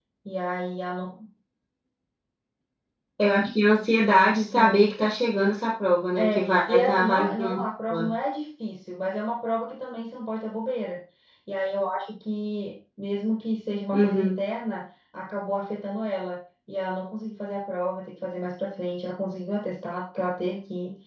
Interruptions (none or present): present